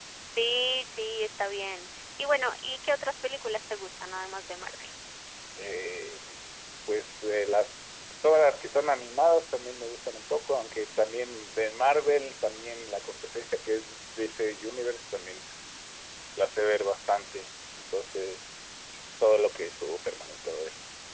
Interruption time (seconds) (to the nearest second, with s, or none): none